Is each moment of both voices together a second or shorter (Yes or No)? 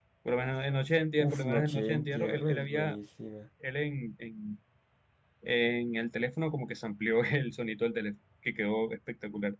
No